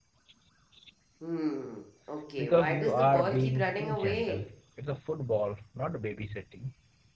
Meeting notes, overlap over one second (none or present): present